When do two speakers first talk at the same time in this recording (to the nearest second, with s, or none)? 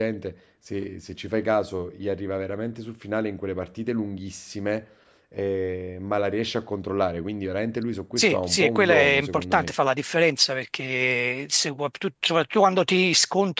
8 s